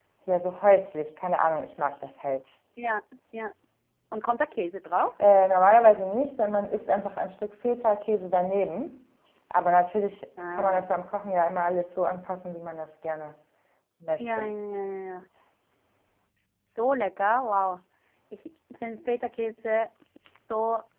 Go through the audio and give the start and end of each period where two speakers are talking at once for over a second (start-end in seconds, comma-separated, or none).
none